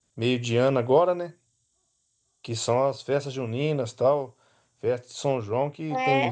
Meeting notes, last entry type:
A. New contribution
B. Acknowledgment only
B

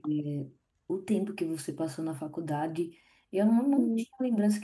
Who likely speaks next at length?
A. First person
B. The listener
A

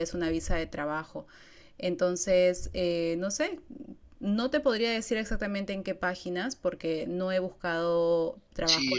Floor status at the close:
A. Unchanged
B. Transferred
B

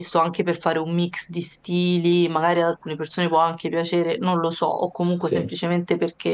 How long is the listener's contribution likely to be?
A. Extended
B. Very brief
B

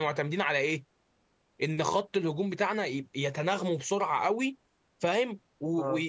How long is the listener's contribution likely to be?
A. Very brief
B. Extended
A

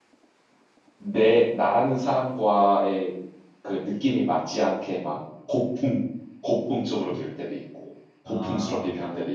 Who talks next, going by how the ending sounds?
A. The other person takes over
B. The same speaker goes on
B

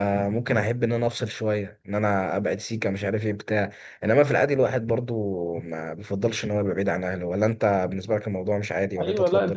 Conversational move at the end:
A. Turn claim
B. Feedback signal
A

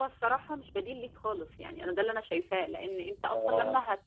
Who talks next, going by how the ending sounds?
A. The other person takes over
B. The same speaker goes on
B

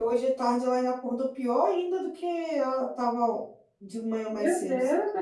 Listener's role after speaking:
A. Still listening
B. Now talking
B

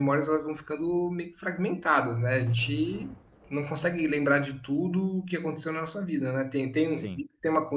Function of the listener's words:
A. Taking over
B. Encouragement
B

